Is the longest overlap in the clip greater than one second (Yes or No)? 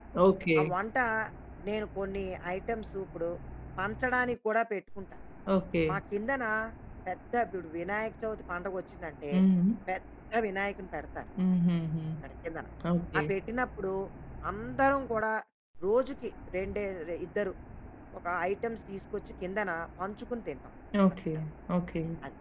No